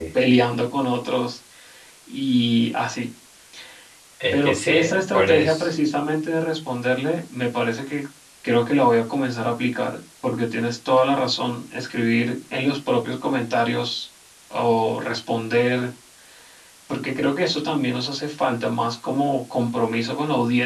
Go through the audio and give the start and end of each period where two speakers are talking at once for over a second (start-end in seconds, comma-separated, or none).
4.3-5.7